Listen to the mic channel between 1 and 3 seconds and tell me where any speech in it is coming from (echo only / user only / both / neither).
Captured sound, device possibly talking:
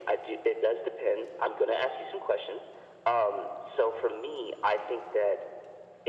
echo only